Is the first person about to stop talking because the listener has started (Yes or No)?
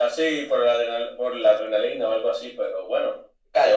Yes